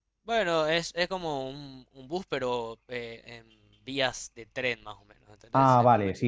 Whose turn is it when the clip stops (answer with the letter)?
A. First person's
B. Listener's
B